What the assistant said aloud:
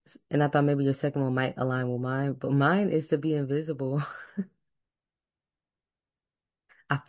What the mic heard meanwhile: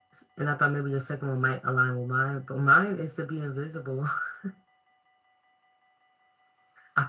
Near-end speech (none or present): none